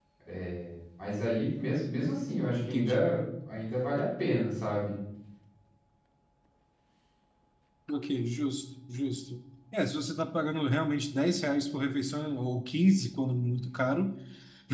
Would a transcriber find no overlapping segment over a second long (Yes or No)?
Yes